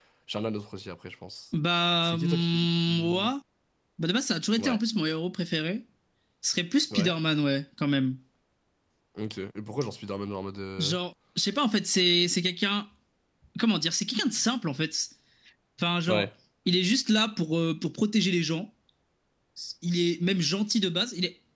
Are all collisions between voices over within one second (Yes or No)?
No